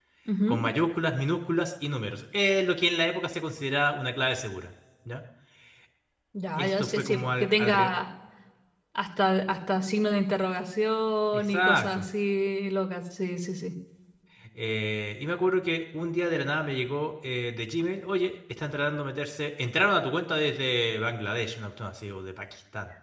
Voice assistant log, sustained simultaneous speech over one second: present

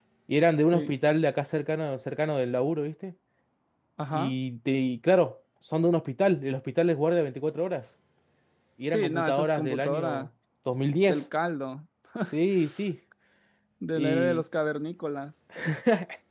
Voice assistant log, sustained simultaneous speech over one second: present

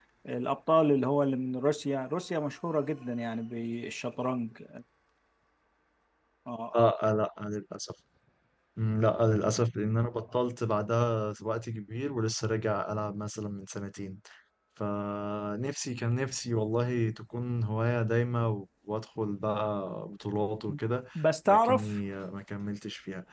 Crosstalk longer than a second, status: none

